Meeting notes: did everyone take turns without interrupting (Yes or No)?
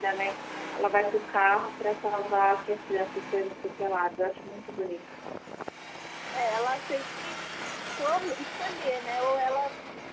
Yes